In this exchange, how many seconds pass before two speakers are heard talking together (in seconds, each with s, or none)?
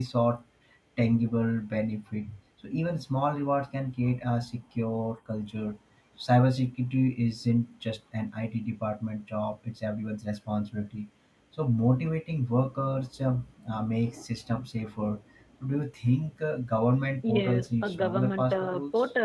17.2 s